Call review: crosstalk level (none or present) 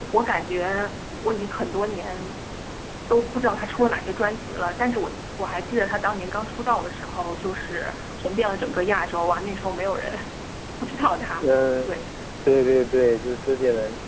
none